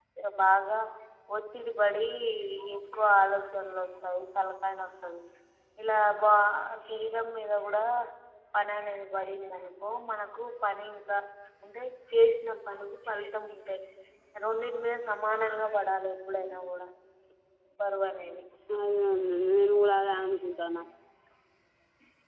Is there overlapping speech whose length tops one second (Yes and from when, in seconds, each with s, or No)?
No